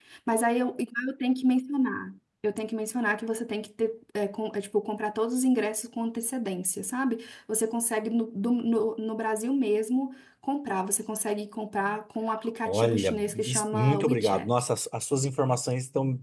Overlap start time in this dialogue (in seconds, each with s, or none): 12.7 s